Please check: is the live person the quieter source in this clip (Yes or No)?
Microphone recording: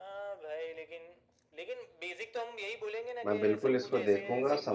No